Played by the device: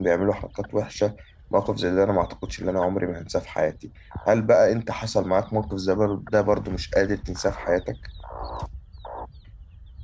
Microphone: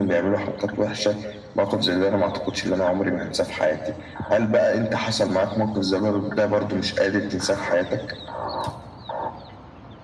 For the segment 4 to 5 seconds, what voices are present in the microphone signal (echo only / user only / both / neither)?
echo only